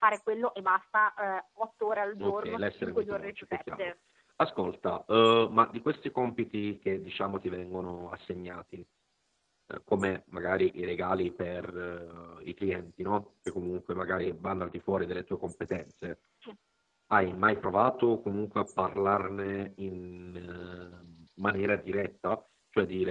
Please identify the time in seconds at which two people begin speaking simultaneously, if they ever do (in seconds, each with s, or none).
2.2 s